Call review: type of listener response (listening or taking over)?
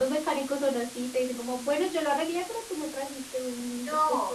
taking over